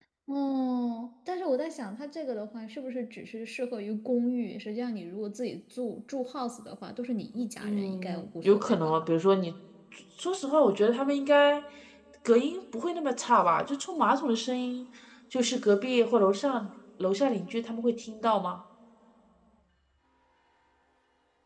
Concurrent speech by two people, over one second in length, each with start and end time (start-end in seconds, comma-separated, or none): 7.6-8.9